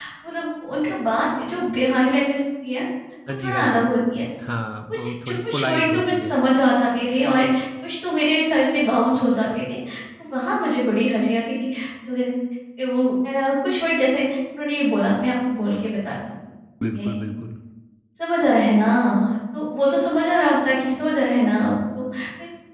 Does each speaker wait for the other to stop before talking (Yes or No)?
No